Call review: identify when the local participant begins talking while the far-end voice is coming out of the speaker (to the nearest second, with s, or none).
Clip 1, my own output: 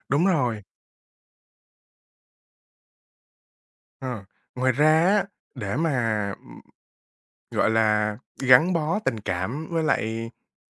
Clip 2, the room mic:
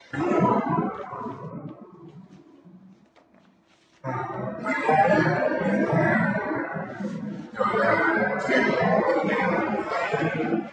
none